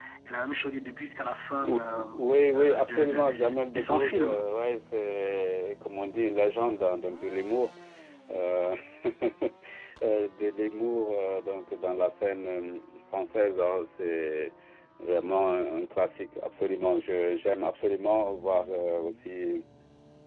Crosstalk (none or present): present